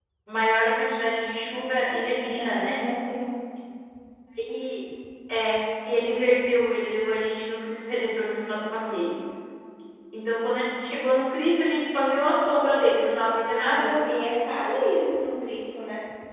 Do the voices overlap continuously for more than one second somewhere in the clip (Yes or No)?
No